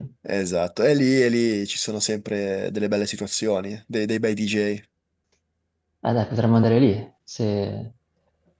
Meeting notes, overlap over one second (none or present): none